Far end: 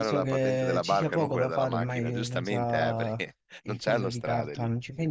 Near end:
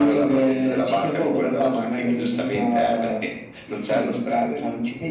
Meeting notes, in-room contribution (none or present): none